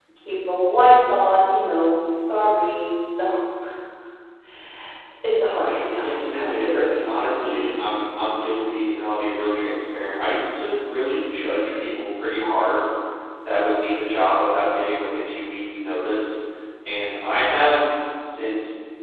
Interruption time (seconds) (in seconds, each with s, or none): 6.0 s